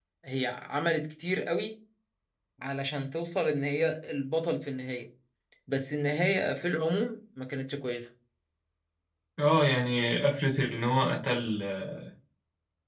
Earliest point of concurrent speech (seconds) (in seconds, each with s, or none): none